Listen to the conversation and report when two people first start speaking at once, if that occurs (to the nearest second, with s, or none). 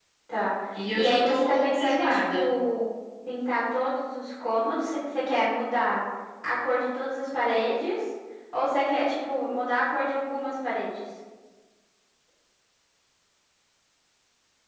1 s